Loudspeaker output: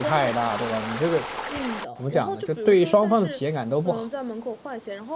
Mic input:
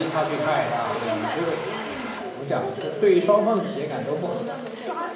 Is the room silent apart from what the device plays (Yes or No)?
No